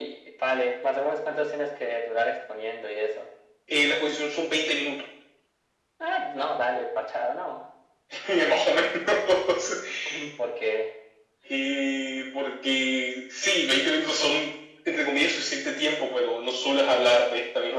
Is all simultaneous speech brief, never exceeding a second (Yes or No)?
Yes